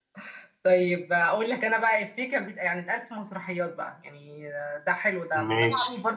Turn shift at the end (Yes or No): No